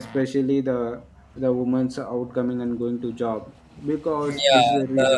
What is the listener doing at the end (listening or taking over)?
taking over